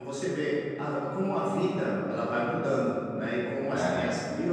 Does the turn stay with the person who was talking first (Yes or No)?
Yes